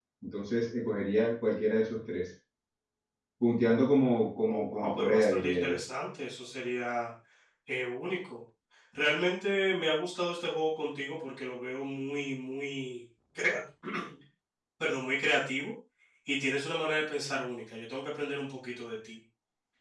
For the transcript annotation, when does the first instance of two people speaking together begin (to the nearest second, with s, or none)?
4 s